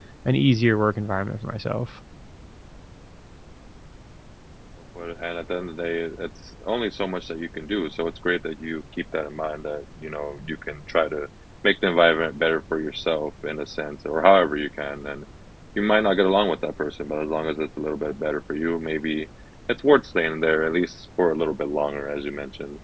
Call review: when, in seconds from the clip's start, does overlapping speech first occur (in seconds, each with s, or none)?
none